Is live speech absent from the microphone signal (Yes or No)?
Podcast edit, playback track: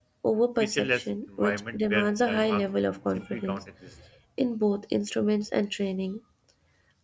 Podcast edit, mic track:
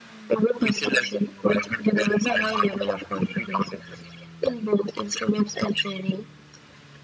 Yes